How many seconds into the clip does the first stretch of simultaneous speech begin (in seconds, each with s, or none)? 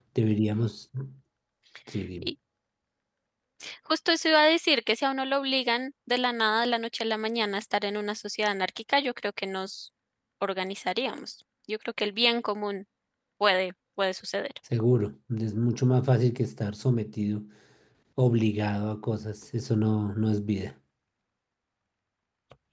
none